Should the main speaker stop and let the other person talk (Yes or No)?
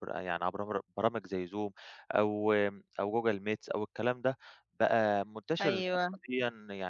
No